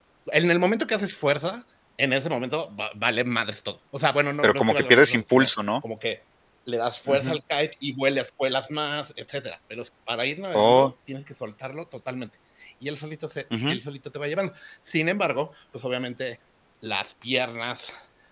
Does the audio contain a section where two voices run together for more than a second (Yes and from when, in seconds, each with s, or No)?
Yes, from 4.4 s